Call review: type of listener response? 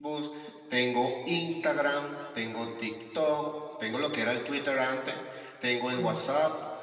listening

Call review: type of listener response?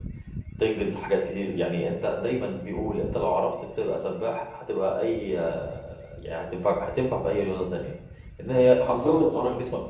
listening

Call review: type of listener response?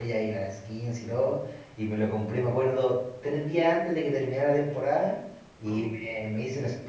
listening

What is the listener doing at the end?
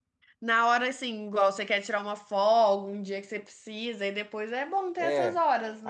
taking over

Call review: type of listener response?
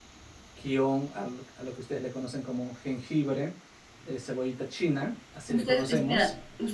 taking over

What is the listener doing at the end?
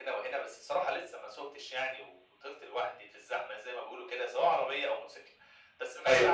listening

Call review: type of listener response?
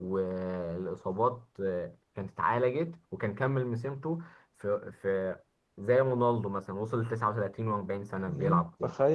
taking over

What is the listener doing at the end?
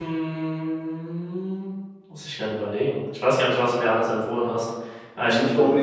taking over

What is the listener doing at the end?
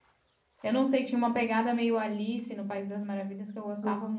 listening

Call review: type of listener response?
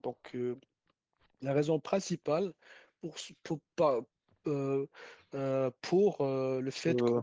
listening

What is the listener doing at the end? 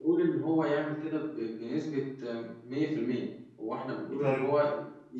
listening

